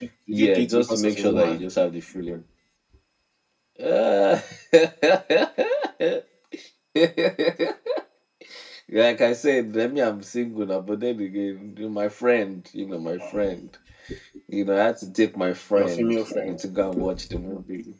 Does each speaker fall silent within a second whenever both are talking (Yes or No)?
No